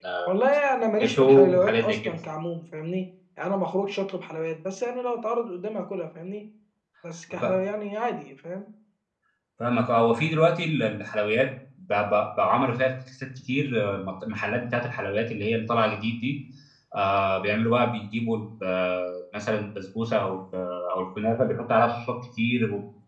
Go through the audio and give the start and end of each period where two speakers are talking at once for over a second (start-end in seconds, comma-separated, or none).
1.0-2.2